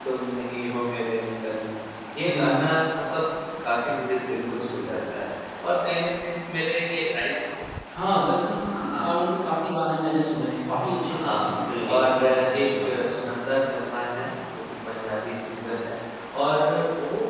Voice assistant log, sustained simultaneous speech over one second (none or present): present